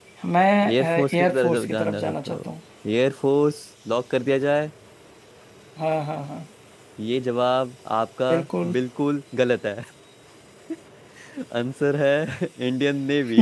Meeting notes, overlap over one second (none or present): present